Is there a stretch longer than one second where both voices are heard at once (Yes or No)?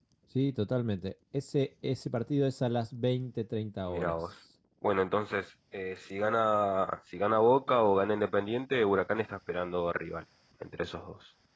No